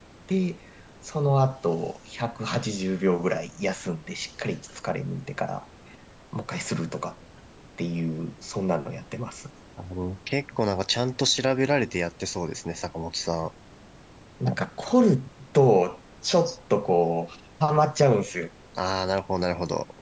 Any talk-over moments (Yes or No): No